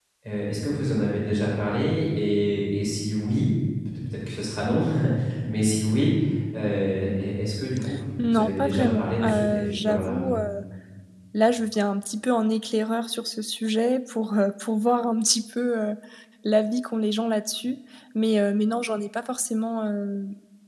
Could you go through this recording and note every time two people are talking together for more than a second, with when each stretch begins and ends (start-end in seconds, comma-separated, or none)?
8.2-10.2